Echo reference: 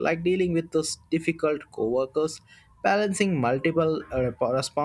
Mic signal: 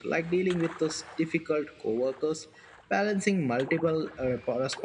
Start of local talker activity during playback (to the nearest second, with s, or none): none